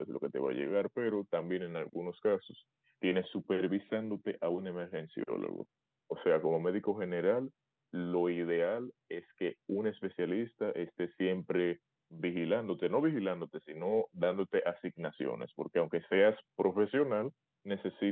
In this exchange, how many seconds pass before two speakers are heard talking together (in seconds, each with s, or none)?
none